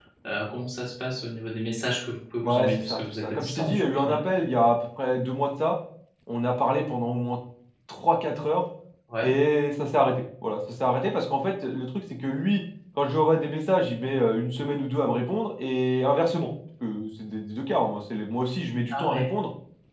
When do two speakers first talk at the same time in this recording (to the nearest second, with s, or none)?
2 s